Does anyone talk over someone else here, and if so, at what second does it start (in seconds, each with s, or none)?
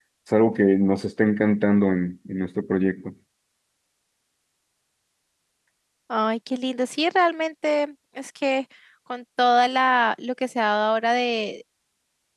none